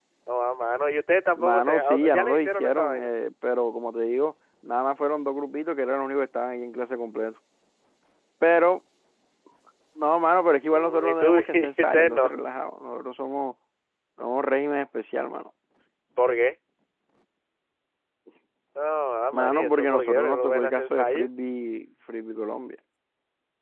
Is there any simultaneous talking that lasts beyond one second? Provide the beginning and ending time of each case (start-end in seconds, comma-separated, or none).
1.4-3.1, 10.7-12.3, 19.3-21.3